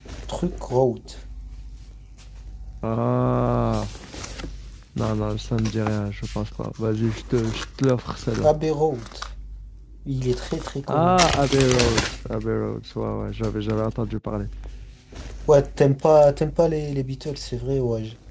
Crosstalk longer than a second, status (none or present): none